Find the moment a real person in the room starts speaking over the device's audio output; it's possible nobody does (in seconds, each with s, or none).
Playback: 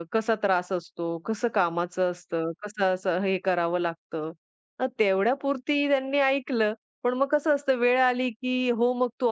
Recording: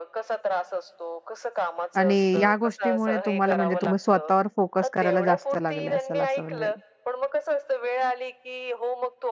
2.0 s